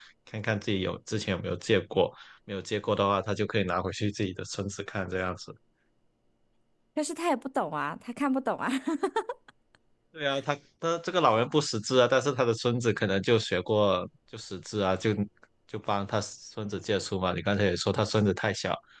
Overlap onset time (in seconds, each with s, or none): none